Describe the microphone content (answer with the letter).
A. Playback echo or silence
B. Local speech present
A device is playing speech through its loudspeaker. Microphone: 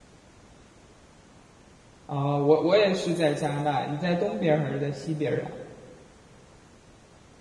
B